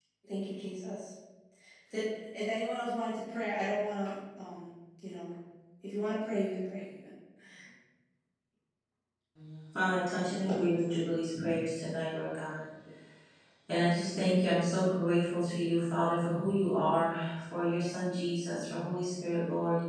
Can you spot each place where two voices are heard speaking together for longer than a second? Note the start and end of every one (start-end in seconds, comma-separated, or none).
none